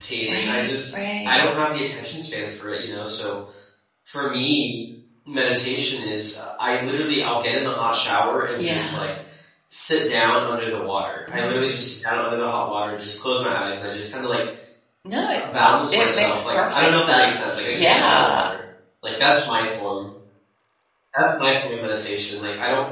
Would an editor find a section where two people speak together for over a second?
Yes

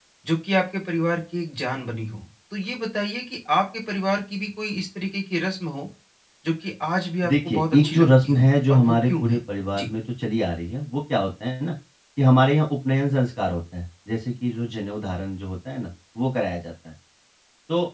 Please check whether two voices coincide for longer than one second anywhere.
Yes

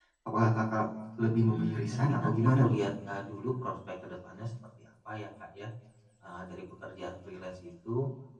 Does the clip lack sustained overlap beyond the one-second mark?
No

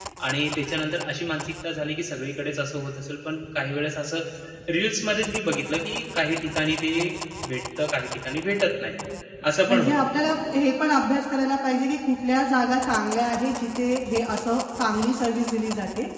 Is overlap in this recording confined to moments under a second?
Yes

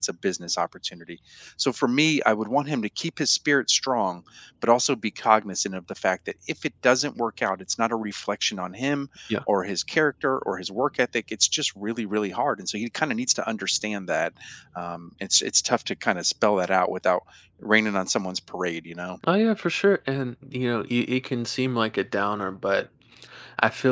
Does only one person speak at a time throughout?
Yes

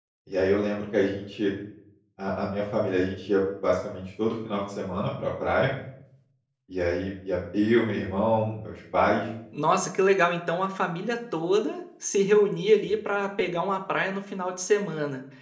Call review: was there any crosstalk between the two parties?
No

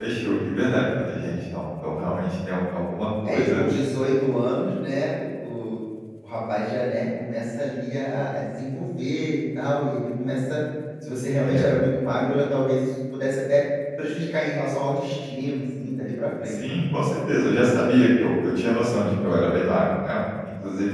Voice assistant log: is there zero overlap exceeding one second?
Yes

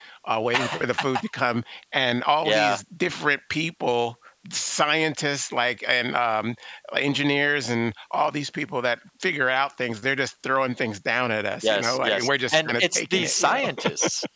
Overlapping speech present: Yes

